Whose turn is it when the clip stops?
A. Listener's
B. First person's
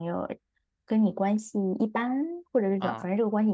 B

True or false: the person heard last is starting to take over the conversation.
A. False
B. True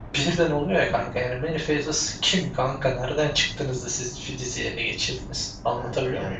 B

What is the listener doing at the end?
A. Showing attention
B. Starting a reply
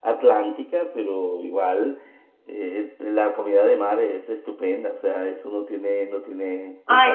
B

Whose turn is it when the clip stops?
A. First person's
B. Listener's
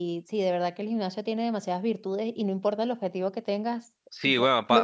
B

